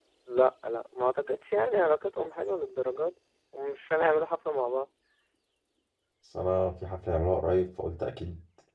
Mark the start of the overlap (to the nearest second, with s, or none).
none